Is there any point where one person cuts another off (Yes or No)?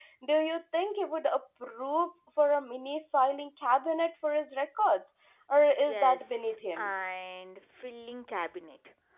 Yes